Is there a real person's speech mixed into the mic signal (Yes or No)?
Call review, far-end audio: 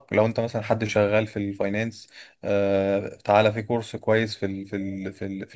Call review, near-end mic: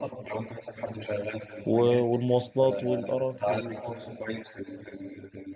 Yes